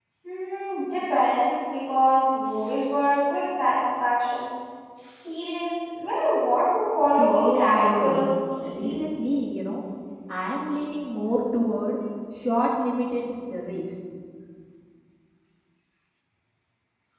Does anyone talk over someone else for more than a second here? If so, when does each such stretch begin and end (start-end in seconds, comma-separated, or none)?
7.0-8.3